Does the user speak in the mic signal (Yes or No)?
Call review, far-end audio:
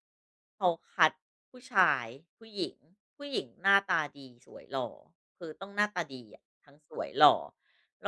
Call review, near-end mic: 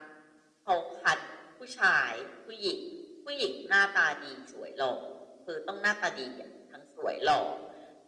No